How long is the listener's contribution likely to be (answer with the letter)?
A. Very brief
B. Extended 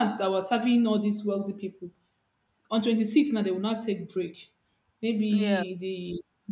A